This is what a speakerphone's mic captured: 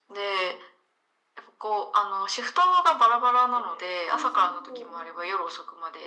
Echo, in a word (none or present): present